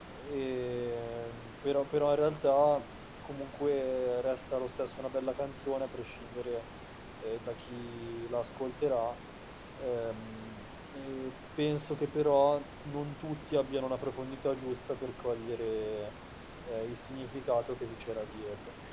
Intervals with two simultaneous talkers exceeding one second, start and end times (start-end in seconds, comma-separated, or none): none